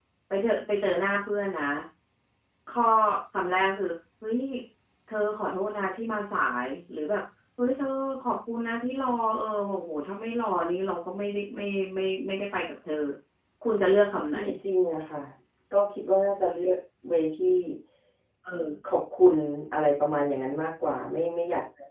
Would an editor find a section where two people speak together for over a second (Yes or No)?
No